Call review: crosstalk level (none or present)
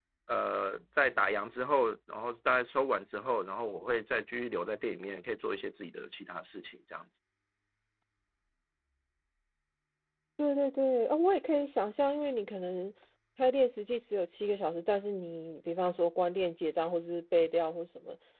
none